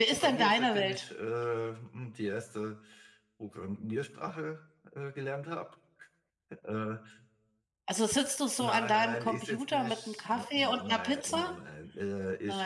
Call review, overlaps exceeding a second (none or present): present